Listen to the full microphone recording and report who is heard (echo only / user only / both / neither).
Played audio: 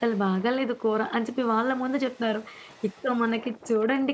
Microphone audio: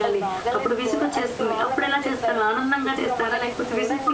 both